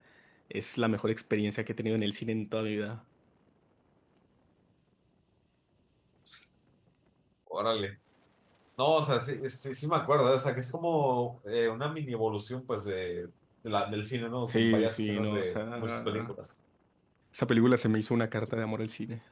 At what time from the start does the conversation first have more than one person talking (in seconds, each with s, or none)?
14.5 s